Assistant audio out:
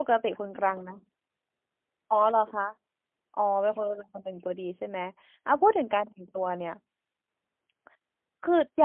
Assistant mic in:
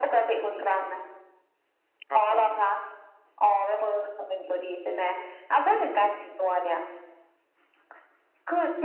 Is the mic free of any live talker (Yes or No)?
No